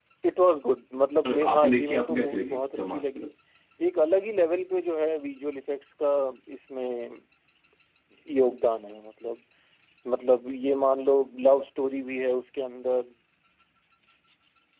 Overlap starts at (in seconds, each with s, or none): 1.2 s